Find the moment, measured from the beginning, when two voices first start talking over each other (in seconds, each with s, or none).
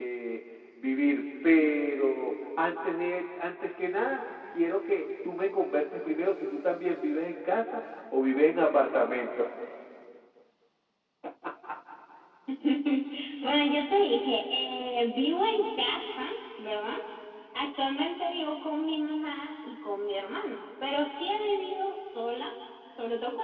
none